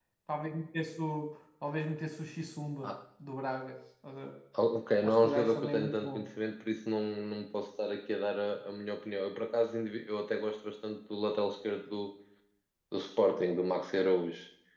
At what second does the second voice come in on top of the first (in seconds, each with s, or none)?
5.0 s